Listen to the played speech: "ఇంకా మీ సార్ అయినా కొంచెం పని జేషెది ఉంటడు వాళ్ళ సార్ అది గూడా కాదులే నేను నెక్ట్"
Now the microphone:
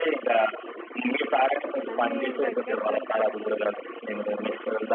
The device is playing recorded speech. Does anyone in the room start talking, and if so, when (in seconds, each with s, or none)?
1.9 s